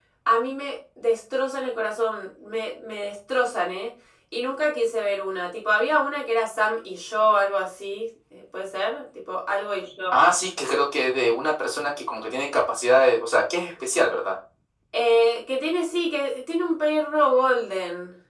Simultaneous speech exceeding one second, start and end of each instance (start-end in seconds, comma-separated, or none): none